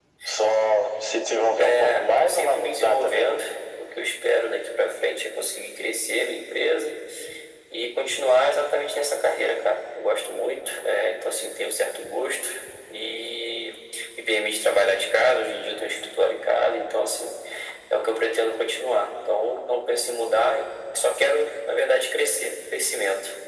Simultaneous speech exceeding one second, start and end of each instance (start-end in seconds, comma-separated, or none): 1.6-3.3